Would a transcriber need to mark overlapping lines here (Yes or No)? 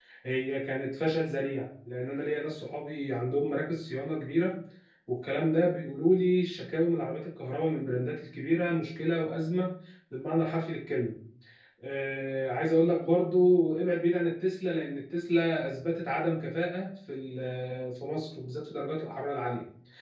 No